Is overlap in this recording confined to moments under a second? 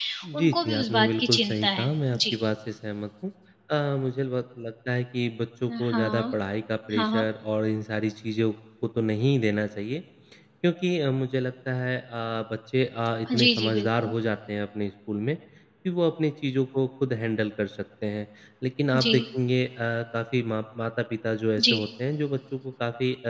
No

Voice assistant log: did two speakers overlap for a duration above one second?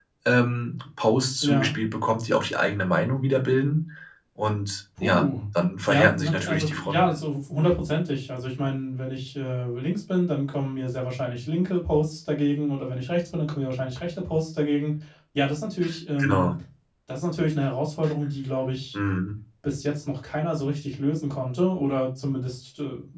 Yes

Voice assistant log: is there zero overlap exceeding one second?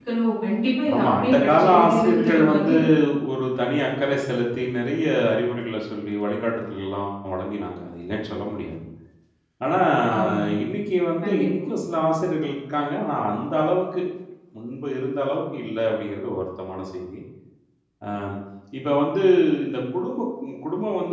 No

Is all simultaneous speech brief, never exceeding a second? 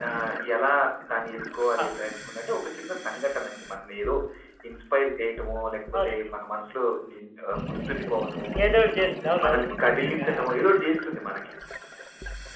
Yes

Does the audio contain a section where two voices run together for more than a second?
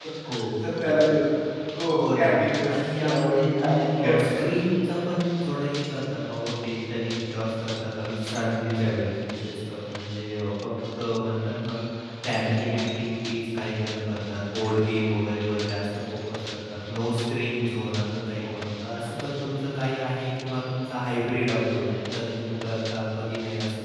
Yes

